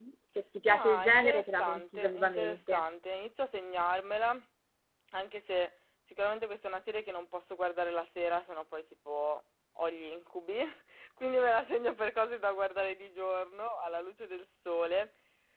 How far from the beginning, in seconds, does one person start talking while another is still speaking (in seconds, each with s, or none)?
0.7 s